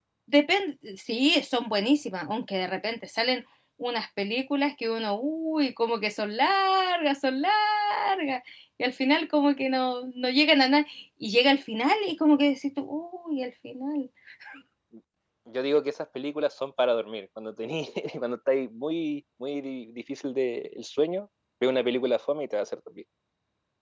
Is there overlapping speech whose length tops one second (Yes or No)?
No